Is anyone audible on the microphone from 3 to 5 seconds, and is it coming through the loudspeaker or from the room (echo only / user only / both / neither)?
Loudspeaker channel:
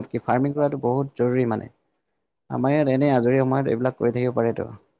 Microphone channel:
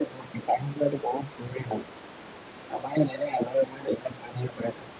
echo only